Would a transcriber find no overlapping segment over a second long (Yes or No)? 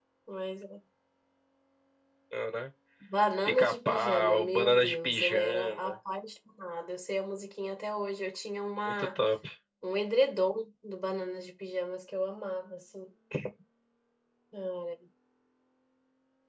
No